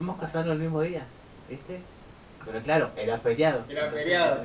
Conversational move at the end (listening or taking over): listening